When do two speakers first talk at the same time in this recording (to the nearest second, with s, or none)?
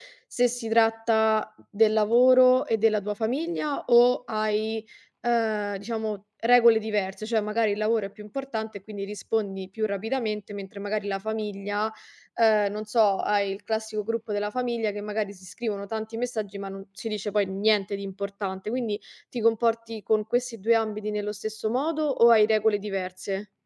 none